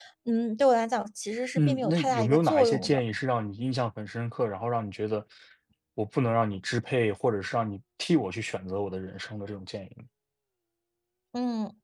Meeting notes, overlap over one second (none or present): present